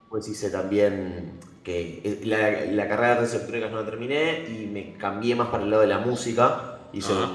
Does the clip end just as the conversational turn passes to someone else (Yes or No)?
No